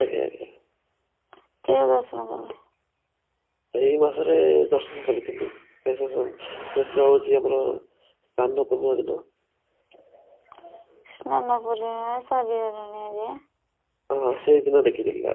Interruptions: none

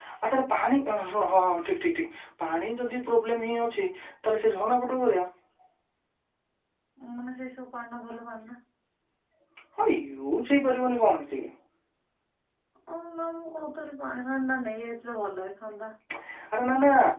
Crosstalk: none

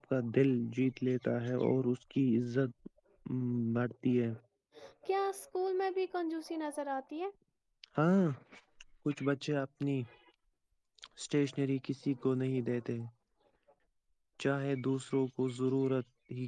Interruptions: none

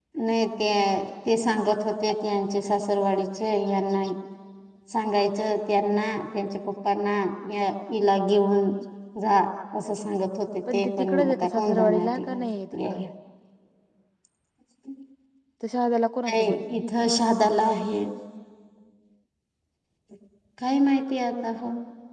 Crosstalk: present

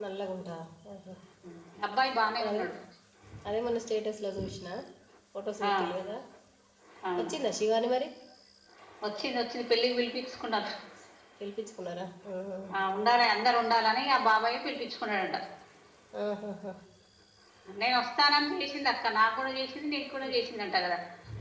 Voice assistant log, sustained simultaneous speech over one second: none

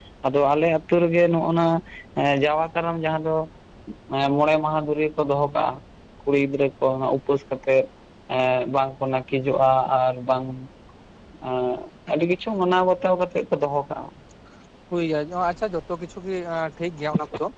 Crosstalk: none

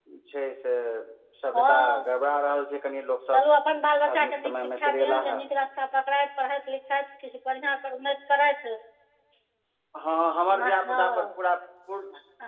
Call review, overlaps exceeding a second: present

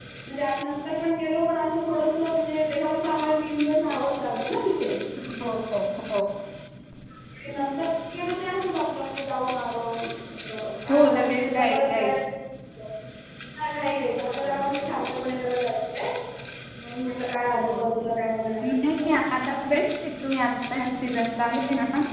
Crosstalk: present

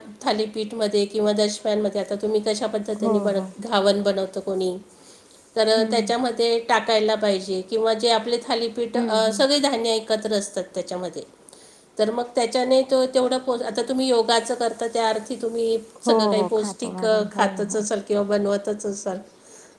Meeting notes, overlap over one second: present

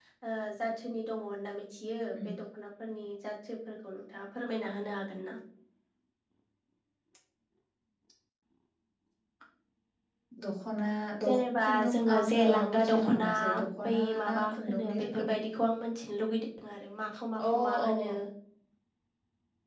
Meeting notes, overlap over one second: present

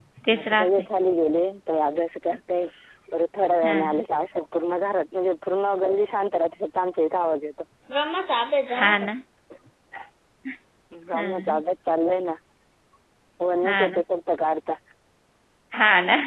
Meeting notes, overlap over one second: none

